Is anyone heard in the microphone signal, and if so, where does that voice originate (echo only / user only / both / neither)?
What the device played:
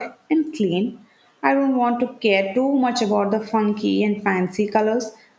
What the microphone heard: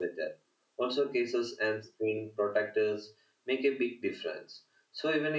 user only